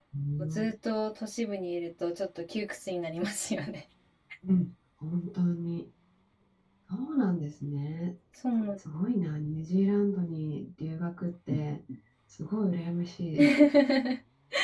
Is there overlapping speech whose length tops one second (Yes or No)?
No